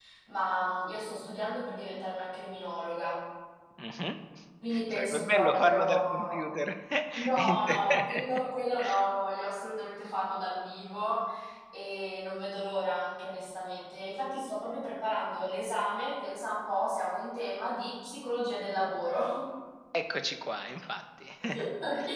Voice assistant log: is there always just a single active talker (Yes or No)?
No